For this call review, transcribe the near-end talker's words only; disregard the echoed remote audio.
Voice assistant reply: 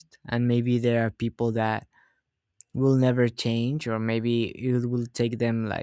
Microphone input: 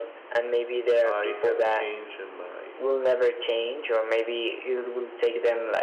i had a change in my

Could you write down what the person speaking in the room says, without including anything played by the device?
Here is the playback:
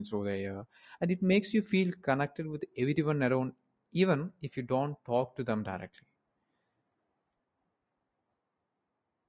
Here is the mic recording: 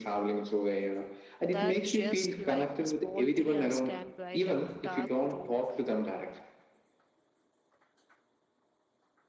that just like a small diya can brighten a dark room,

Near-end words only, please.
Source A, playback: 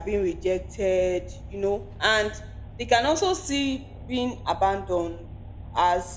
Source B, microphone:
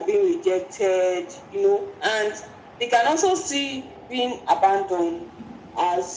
none

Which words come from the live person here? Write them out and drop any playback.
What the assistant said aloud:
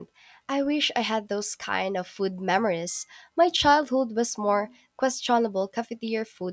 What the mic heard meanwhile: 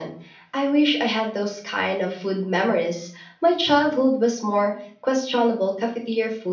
none

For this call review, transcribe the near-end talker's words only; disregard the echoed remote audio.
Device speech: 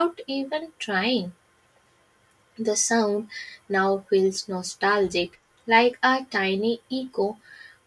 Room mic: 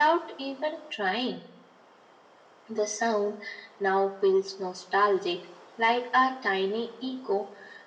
none

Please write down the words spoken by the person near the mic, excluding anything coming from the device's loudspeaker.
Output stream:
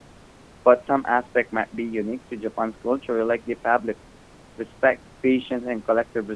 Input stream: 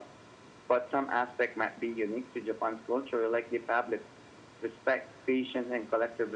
none

